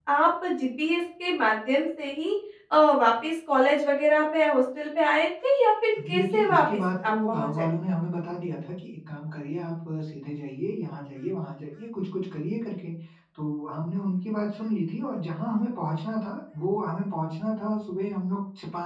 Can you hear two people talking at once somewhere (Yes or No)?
Yes